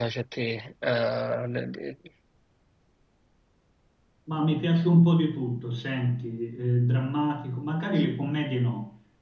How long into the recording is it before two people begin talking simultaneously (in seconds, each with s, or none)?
none